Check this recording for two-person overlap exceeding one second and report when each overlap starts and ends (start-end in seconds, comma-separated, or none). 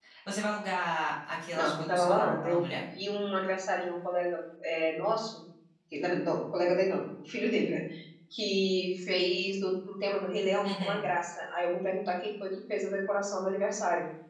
1.6-2.8